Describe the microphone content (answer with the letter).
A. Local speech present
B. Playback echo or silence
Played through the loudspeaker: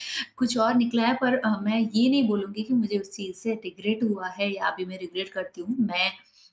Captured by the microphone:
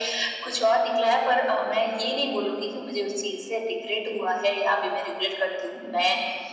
B